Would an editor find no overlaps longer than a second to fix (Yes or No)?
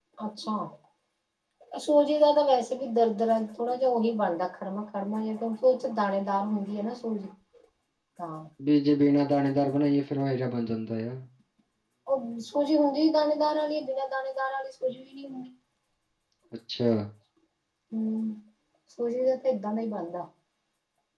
Yes